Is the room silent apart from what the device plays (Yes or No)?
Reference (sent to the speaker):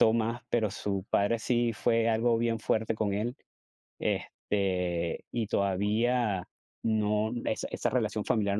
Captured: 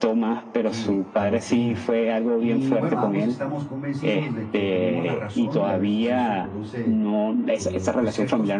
No